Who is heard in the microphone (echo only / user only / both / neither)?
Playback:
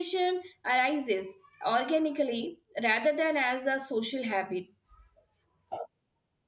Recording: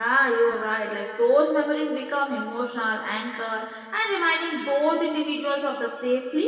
user only